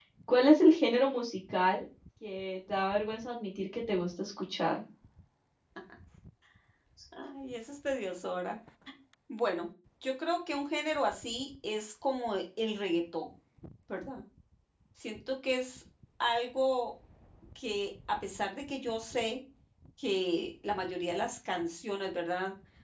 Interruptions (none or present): none